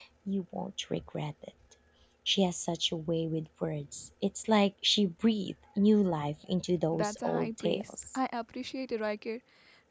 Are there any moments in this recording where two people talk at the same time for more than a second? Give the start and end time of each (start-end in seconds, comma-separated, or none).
6.9-8.2